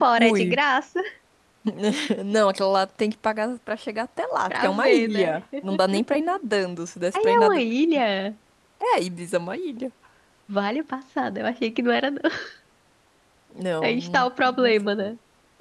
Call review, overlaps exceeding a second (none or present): present